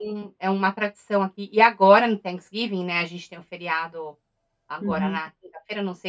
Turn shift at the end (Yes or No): No